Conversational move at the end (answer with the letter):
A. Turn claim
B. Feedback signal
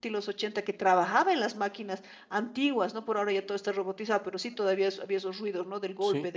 B